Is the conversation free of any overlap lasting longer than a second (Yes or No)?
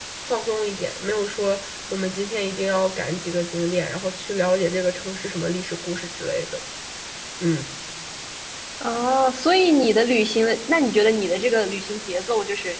Yes